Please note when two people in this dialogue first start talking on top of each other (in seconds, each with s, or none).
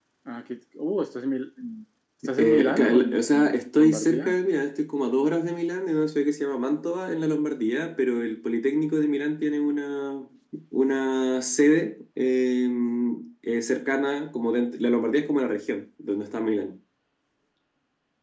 2.2 s